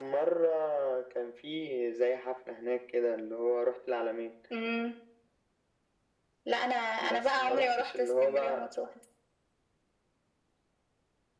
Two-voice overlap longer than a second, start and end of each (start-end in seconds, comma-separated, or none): 7.0-8.7